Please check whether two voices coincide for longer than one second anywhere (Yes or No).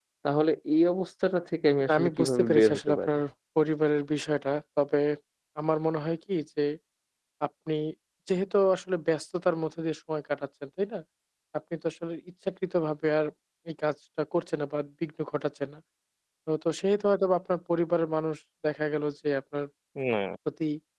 Yes